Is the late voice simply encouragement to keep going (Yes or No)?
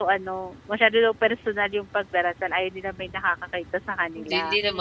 No